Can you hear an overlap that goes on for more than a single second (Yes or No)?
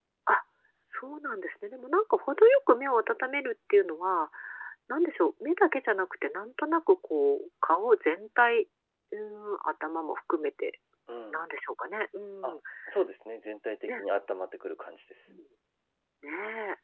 No